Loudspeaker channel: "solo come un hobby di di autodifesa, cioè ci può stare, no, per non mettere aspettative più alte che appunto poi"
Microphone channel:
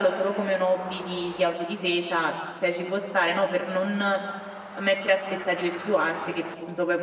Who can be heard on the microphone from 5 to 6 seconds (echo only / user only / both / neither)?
echo only